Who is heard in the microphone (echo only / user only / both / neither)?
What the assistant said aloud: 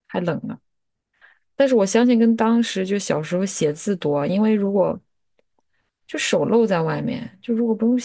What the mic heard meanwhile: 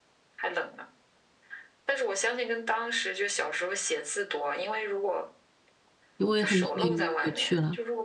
both